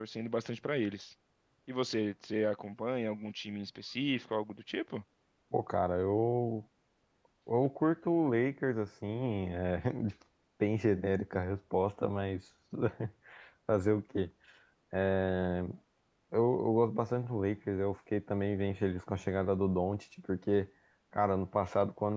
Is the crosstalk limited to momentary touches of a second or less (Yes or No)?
Yes